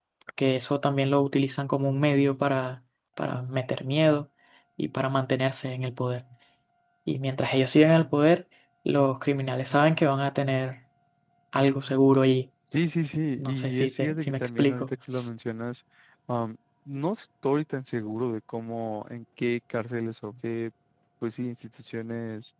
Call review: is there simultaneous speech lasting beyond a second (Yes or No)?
Yes